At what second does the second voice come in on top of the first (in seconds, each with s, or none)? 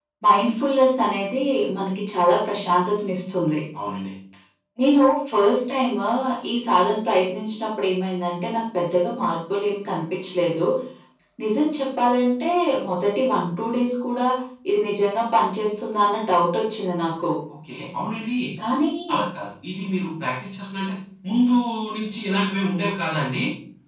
none